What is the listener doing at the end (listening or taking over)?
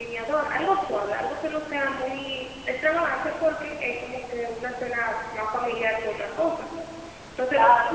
listening